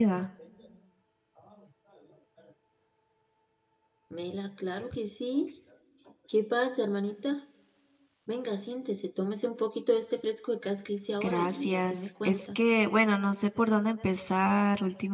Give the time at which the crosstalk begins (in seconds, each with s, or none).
11.2 s